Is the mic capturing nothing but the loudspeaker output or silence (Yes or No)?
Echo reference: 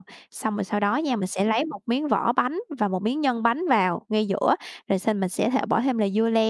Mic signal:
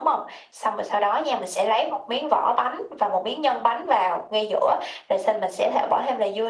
Yes